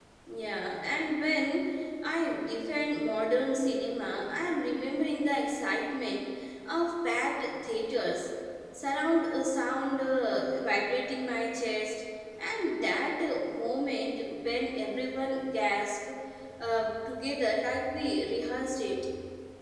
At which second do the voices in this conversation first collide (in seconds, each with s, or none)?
none